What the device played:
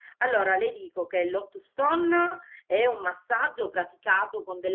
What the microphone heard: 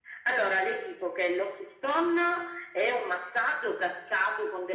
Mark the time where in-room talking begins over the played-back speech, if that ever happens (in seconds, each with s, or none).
none